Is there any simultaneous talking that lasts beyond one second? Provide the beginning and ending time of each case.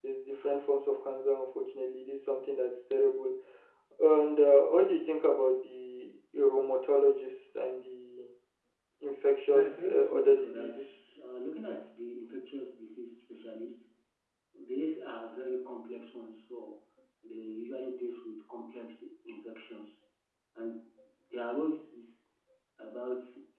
9.5-10.8

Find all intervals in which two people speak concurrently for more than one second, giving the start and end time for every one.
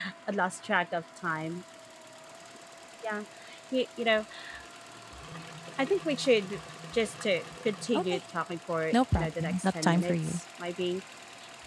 8.9-10.4

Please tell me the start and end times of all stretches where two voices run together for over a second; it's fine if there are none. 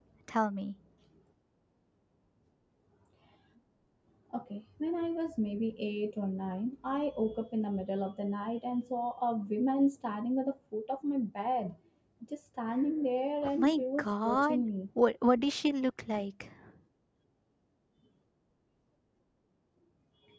13.4-14.6

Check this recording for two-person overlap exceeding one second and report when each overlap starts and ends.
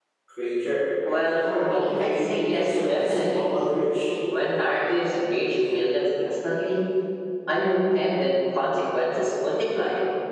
1.1-3.5

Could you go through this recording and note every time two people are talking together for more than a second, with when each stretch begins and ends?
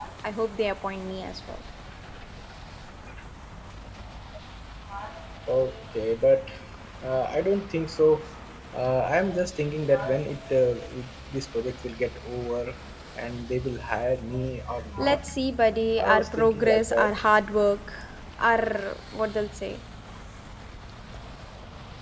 16.0-17.2

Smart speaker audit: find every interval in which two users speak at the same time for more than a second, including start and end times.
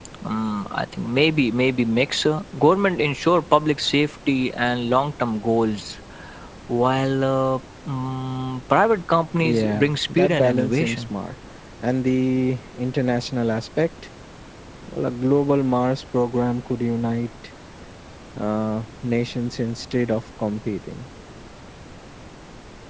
9.4-11.0

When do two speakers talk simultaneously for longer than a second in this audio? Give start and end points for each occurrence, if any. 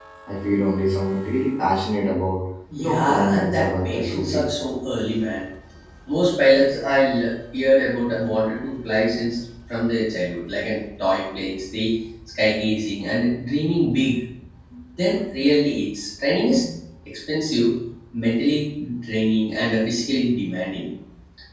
2.8-4.5

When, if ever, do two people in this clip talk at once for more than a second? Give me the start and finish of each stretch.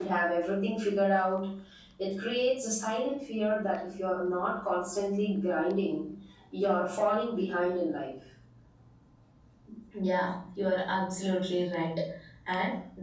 none

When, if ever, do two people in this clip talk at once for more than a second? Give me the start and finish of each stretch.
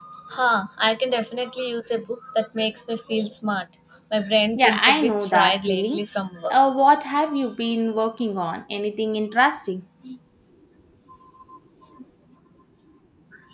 4.6-6.0

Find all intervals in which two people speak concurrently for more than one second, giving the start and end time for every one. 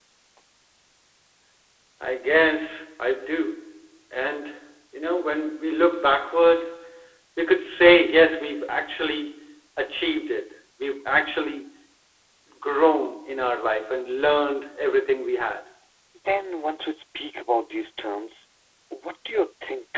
none

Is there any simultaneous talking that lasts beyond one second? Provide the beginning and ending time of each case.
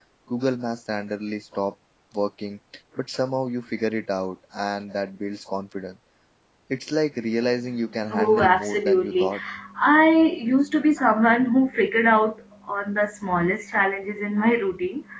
8.1-9.3

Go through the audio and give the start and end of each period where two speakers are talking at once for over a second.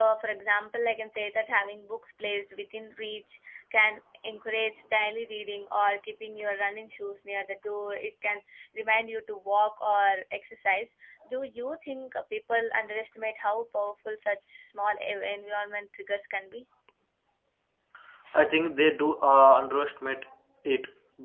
none

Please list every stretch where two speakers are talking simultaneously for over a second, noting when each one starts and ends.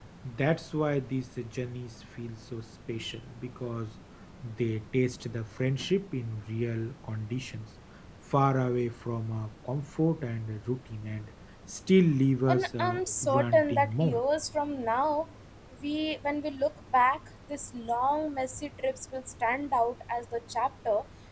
12.5-14.2

